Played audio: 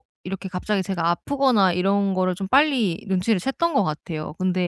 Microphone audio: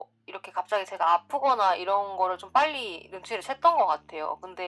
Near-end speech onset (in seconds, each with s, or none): none